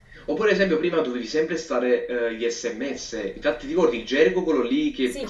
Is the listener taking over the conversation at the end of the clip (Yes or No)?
Yes